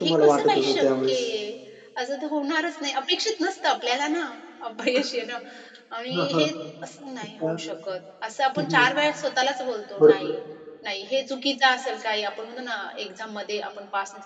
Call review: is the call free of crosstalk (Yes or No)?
No